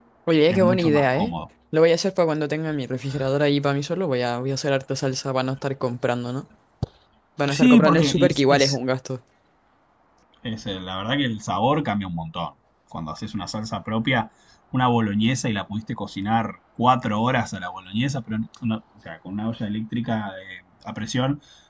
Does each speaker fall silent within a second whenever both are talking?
No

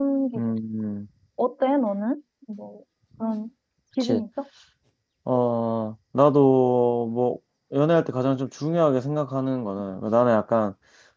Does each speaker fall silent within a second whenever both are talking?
Yes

